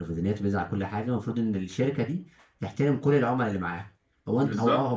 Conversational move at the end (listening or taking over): taking over